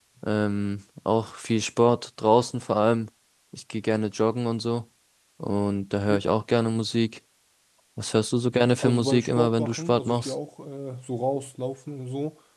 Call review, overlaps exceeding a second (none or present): present